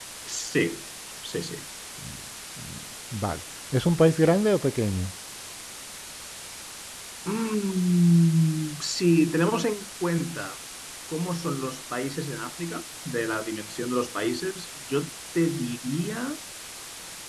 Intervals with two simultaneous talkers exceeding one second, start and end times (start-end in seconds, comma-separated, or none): none